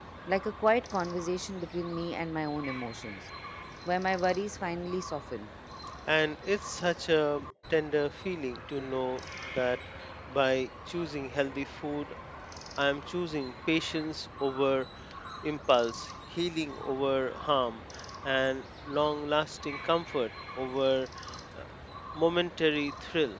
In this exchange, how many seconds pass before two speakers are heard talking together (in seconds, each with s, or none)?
none